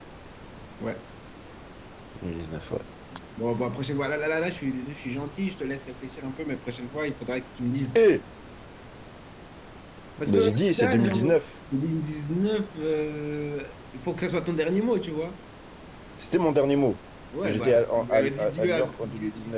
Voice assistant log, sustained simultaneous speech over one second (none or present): present